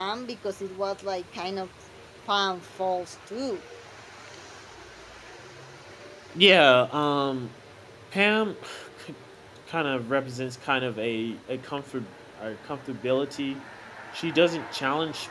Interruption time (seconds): none

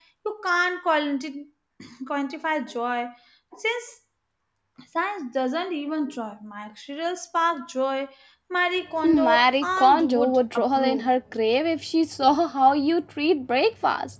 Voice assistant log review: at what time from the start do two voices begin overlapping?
9.0 s

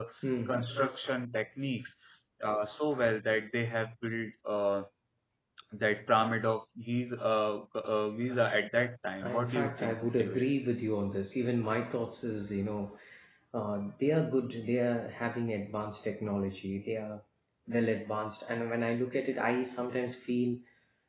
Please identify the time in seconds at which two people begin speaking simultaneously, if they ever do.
9.2 s

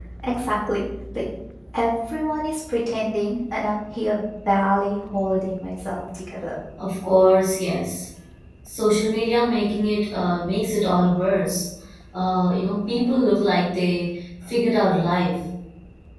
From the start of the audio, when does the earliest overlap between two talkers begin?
none

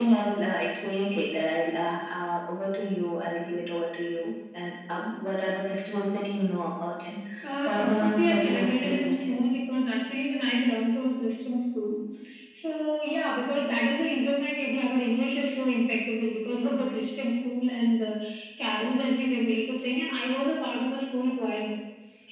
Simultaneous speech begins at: 7.7 s

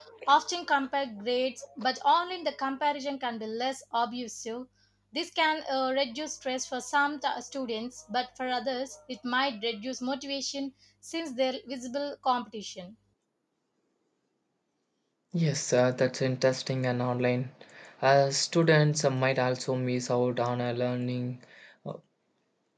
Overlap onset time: none

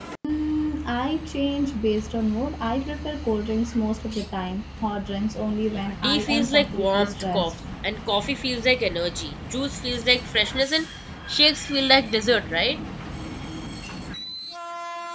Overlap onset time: 5.7 s

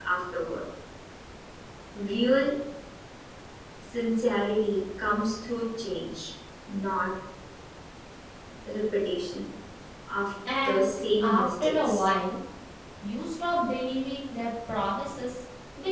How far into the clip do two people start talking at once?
10.6 s

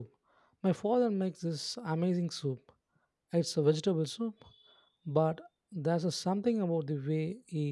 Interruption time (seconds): none

